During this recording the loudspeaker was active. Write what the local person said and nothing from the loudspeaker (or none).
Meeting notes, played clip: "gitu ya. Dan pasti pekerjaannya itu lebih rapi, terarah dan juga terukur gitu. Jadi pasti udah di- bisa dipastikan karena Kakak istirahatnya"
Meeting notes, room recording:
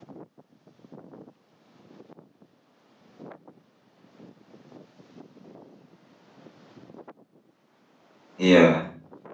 iya.